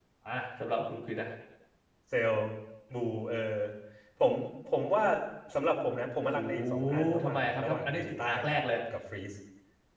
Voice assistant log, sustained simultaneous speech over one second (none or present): present